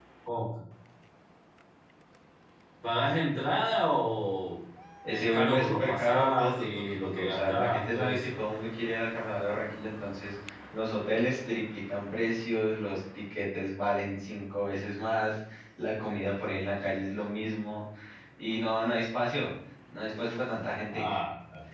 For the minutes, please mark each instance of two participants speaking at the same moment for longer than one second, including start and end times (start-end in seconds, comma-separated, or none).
5.1-8.4